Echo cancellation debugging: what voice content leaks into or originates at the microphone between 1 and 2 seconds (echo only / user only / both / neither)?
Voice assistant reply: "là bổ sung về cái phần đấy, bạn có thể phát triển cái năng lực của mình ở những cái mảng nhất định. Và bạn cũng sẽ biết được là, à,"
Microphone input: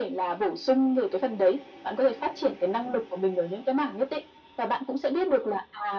echo only